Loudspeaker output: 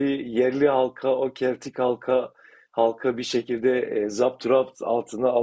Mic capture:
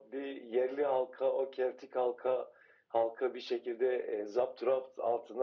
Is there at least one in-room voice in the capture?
No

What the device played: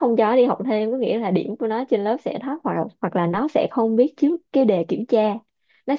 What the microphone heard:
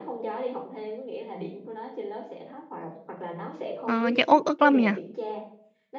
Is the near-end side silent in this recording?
No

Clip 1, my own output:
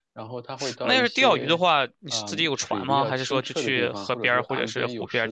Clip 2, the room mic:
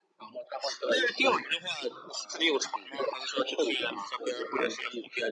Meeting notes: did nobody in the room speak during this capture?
Yes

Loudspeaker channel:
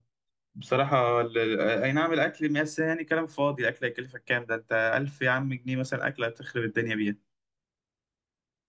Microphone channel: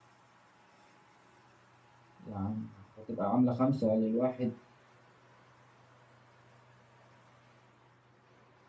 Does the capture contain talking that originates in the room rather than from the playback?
Yes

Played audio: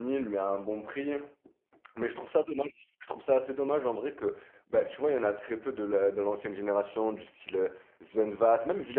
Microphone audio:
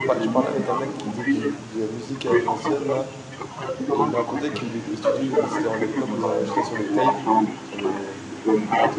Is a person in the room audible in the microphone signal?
Yes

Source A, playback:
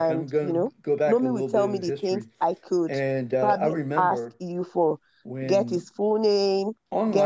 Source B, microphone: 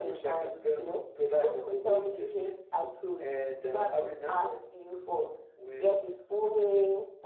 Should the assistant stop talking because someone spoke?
No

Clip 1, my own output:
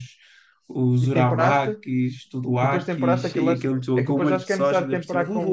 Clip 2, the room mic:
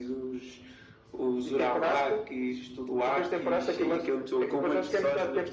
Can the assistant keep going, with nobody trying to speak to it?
Yes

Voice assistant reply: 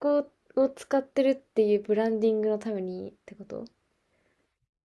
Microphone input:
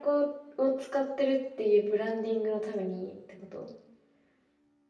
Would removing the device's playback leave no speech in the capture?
Yes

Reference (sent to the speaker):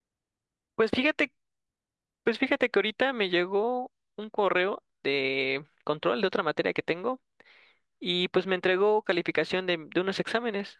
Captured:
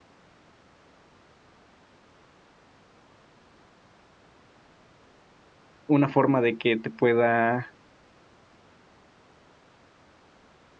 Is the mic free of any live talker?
No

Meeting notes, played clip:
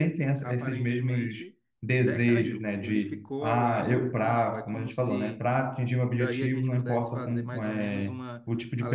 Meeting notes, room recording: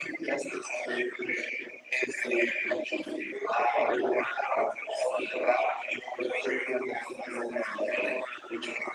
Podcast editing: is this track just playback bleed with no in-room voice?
Yes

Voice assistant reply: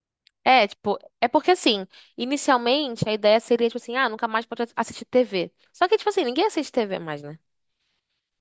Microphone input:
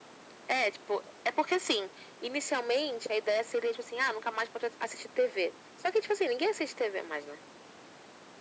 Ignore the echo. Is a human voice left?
No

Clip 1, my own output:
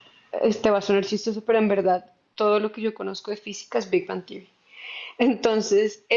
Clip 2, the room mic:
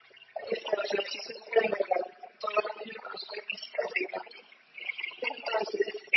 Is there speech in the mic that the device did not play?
No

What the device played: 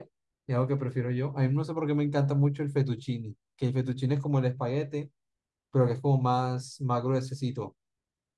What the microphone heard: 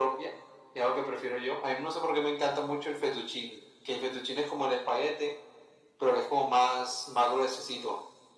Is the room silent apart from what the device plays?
Yes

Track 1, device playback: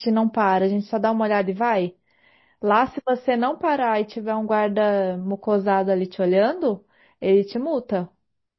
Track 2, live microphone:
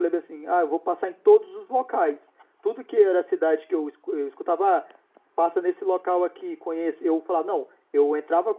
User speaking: Yes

